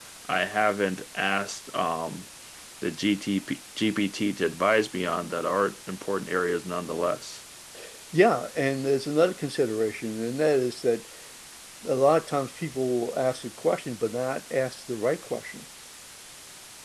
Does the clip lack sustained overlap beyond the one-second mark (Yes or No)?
Yes